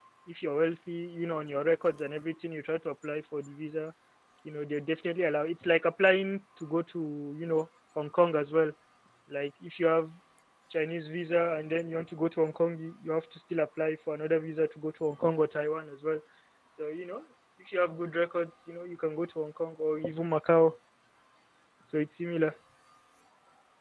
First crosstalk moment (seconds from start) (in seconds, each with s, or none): none